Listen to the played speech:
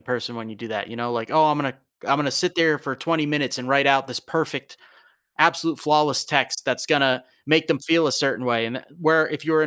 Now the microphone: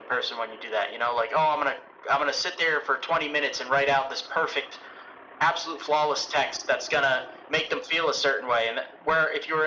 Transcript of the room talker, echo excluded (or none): none